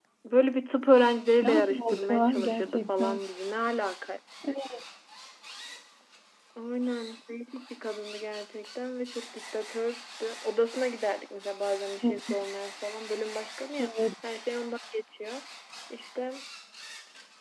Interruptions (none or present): present